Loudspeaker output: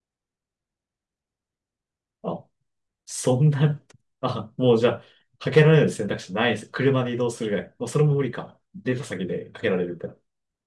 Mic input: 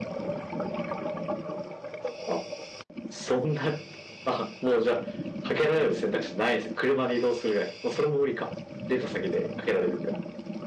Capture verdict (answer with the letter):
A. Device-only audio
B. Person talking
A